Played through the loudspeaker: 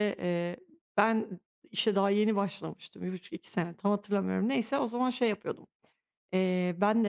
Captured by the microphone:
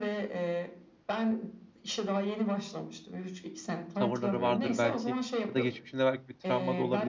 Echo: present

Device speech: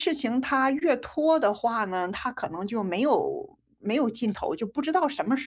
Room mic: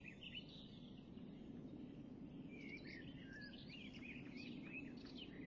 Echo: none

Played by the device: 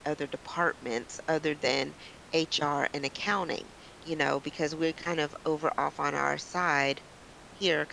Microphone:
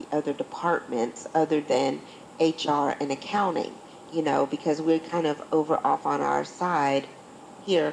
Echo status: present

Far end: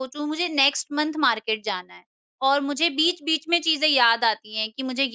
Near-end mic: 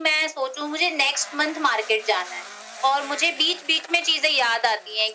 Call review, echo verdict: present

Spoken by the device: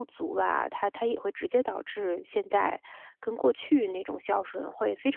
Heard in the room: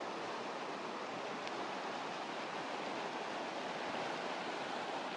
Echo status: none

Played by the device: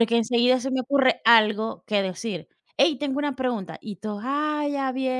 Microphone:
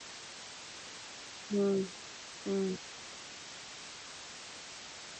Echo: none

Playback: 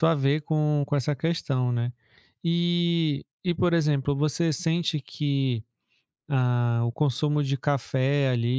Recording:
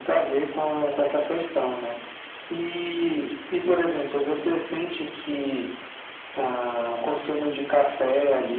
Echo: present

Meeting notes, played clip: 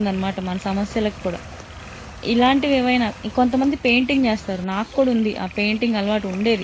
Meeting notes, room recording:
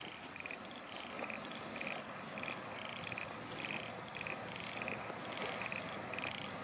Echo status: none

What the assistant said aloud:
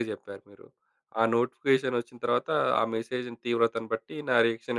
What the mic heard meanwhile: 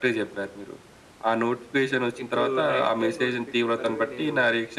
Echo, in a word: present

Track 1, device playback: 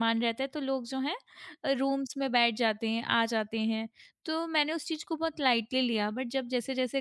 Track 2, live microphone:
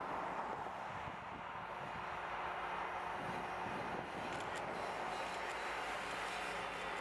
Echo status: none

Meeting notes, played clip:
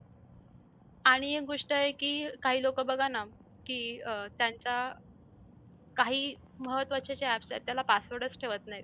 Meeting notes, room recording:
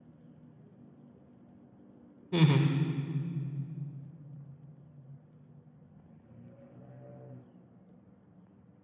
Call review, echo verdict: none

